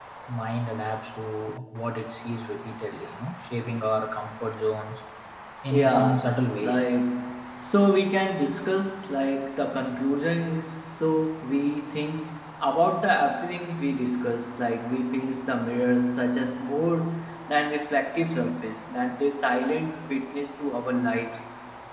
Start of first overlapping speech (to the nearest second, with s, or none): 6 s